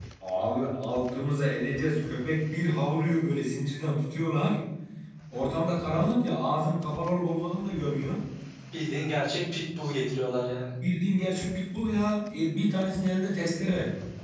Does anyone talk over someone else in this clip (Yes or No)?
No